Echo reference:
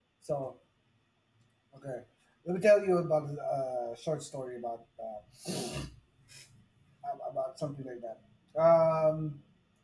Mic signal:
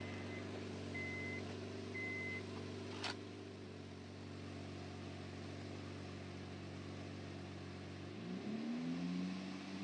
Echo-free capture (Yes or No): Yes